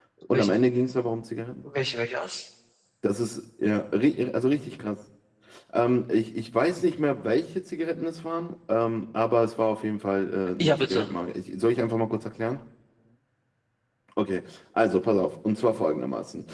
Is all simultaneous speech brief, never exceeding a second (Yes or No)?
Yes